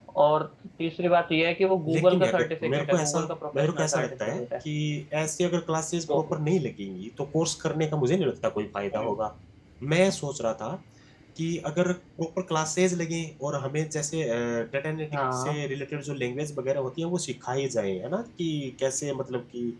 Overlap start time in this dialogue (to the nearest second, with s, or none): 2 s